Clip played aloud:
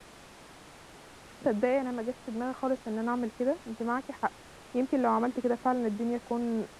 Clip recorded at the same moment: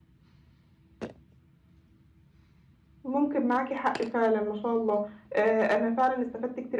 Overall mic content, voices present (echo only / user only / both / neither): user only